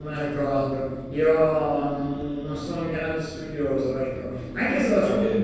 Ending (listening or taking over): listening